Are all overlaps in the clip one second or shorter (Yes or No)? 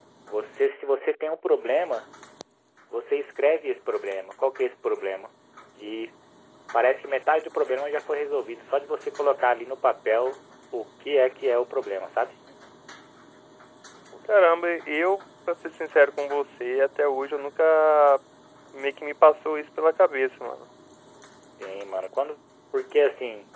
Yes